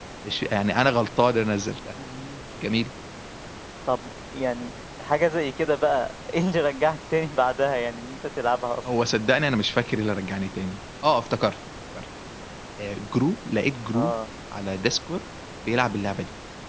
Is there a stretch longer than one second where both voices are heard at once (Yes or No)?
No